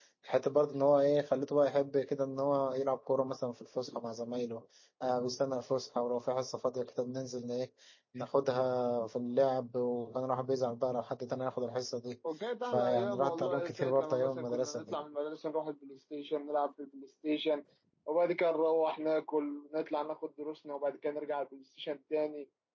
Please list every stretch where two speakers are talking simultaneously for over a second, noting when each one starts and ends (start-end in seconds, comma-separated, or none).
12.7-14.9